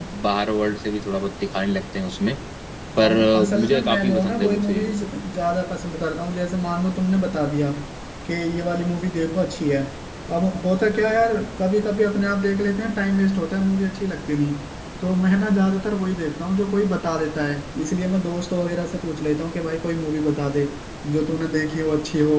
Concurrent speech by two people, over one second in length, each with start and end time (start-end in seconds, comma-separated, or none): 3.0-4.9